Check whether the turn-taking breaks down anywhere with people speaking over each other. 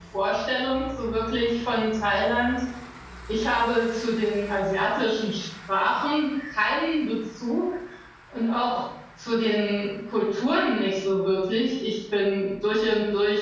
No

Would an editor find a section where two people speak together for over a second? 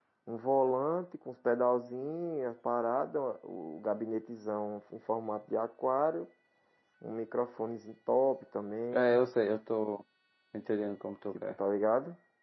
No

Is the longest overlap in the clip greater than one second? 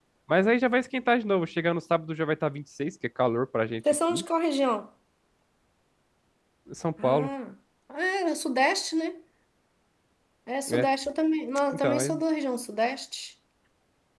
No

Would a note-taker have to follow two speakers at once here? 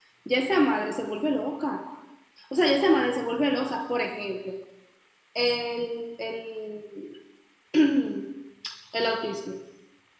No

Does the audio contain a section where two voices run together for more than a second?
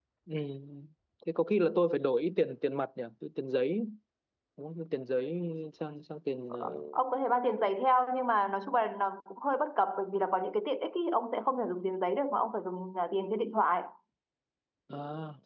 No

